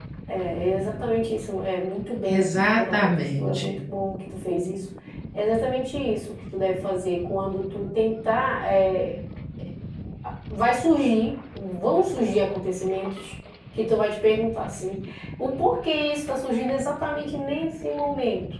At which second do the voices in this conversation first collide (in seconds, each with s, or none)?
2.2 s